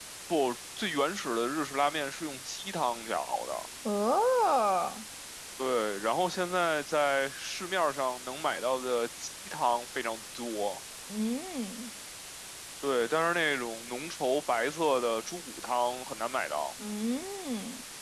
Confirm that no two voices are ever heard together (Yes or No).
Yes